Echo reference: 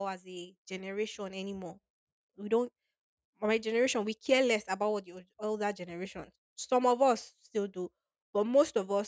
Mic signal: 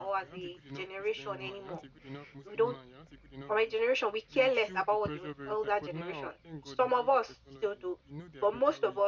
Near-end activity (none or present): present